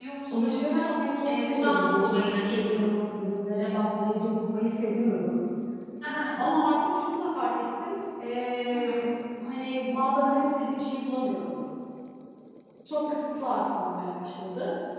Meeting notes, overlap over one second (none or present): present